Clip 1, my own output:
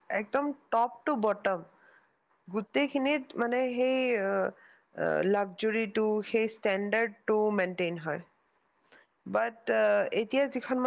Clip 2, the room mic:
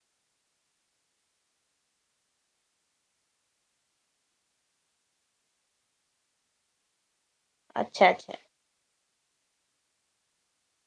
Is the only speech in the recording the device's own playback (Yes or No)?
No